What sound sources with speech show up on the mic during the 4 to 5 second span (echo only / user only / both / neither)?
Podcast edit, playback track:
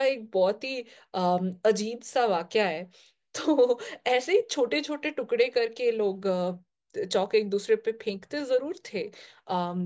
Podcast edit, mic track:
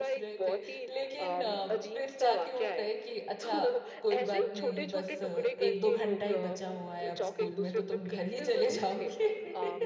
both